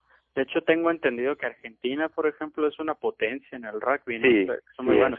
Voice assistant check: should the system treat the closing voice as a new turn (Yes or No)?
Yes